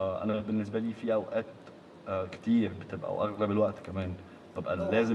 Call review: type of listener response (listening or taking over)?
listening